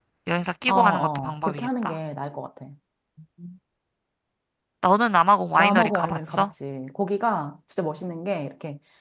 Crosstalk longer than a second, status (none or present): present